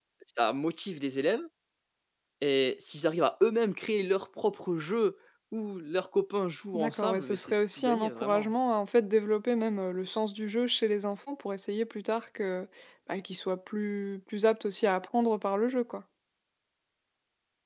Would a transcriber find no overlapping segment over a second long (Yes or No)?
No